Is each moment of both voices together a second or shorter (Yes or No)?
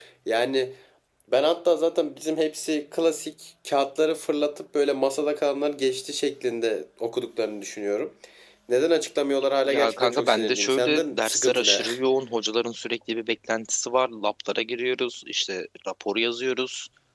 No